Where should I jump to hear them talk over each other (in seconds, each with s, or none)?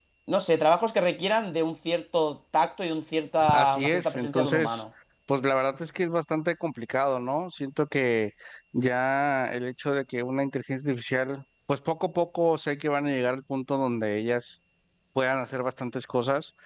3.4 s